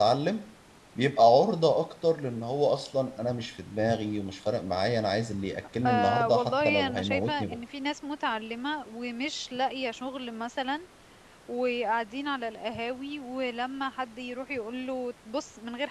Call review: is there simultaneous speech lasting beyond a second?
Yes, from 5.8 s

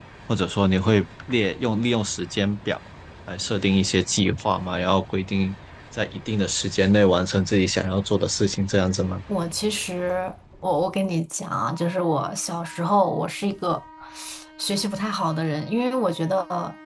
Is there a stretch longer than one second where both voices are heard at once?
No

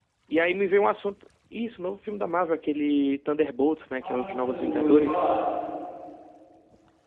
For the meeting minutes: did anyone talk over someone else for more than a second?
Yes, from 4.0 s

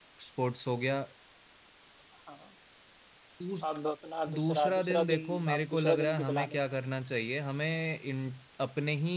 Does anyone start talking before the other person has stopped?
Yes, from 4.3 s

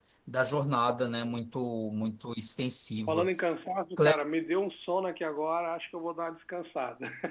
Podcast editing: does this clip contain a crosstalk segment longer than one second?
No

